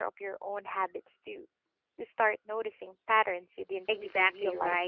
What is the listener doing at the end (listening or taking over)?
taking over